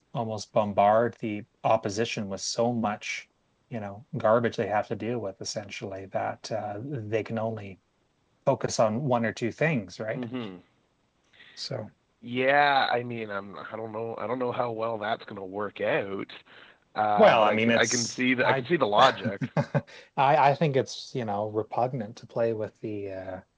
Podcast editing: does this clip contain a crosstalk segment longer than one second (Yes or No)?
Yes